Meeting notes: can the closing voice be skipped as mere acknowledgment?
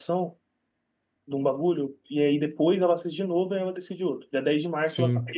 Yes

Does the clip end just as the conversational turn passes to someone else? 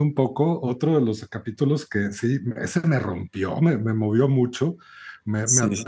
No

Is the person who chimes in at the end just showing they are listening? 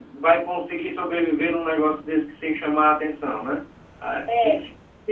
No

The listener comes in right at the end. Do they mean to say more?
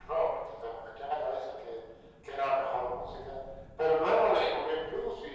No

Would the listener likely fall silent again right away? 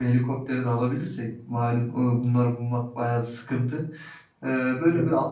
Yes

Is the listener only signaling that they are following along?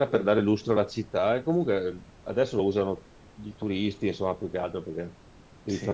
Yes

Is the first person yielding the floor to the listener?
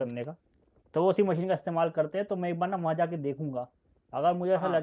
No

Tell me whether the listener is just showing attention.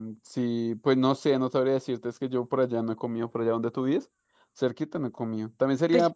Yes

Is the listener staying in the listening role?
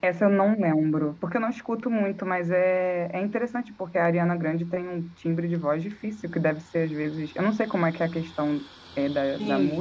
No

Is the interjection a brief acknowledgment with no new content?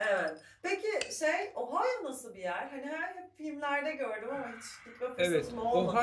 No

